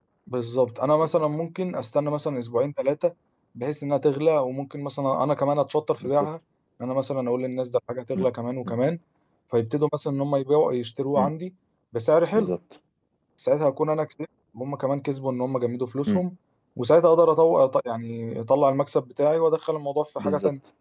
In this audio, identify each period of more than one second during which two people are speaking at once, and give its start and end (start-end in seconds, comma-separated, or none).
none